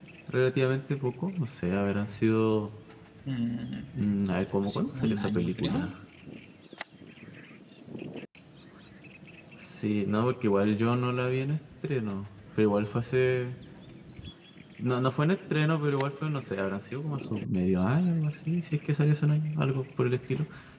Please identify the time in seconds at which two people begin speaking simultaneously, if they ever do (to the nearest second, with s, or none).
5 s